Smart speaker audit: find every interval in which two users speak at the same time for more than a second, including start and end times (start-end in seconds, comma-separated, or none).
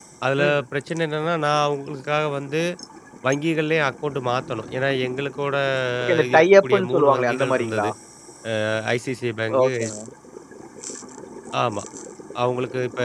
6.2-7.9